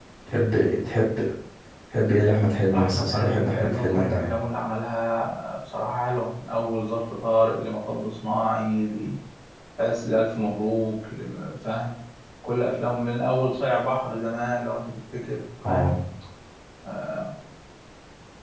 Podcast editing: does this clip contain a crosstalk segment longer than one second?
Yes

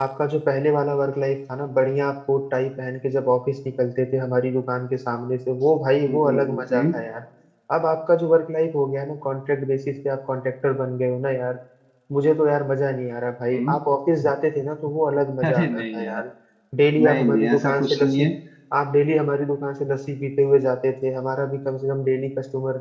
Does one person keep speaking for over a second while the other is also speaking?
Yes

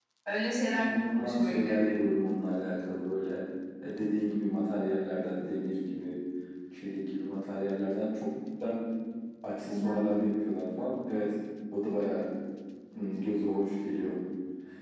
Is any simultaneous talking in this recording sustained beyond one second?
Yes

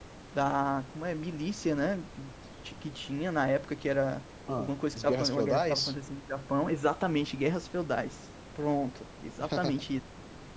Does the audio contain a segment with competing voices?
Yes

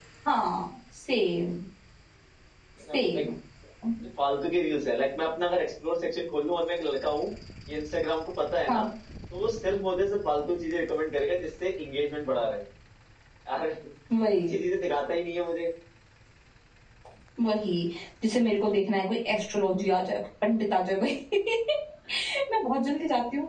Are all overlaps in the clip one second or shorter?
Yes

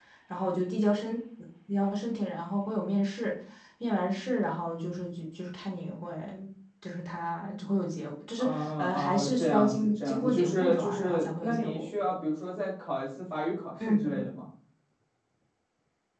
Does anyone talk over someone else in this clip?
Yes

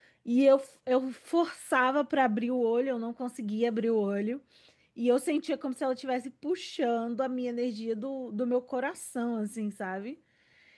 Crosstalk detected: No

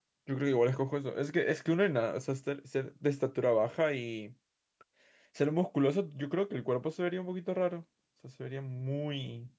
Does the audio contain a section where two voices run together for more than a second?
No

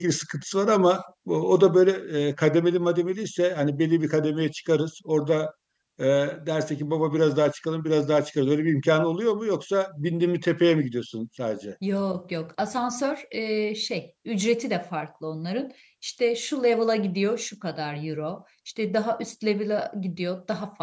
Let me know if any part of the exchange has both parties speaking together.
No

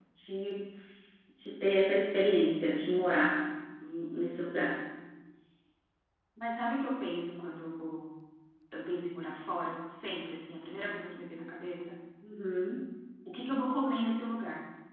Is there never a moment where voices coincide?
Yes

